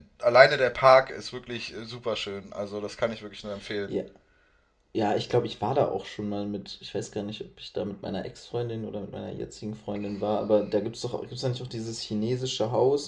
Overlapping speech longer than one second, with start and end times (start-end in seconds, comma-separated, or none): none